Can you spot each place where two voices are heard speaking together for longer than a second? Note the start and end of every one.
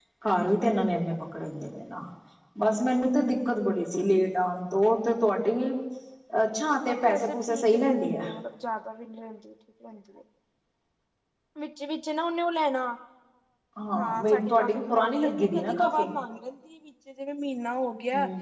6.8-8.3, 13.9-16.1

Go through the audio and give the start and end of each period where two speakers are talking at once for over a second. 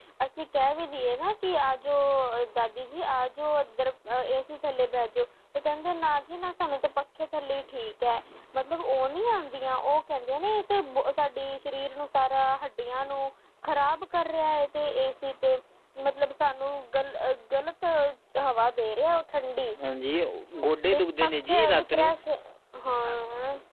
20.9-22.1

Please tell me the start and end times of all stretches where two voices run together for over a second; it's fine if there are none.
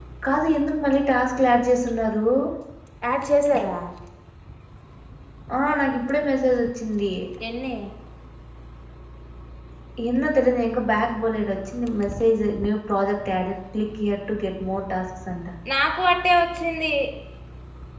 none

